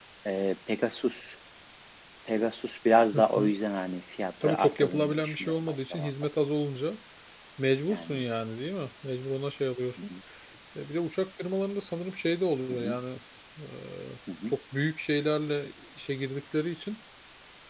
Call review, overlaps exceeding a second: present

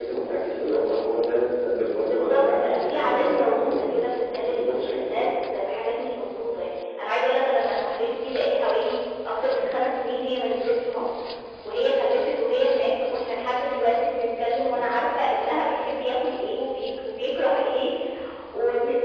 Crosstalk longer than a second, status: present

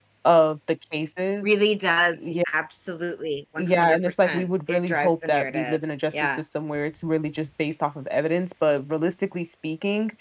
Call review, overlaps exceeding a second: present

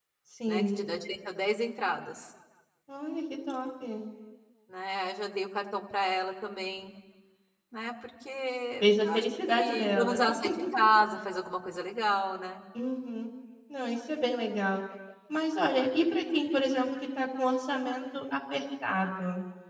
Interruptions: present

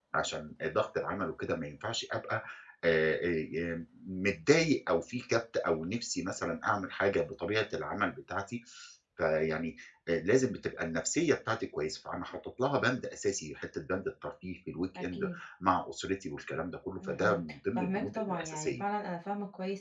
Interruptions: present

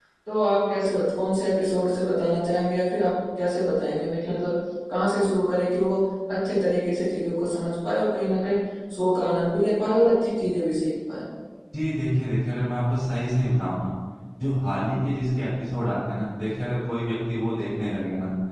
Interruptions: none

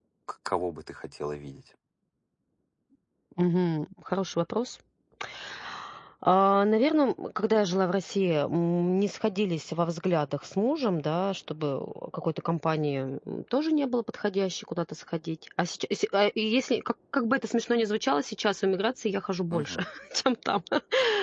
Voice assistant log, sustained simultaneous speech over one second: none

